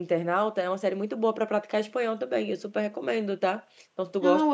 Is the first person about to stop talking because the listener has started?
No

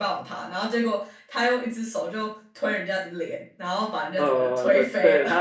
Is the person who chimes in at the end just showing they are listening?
No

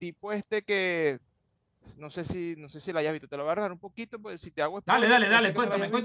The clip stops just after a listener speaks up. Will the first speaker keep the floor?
No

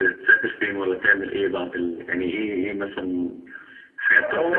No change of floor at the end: No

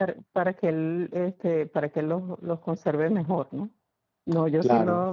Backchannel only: Yes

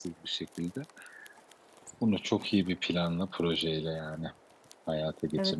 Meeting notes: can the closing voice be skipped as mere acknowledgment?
No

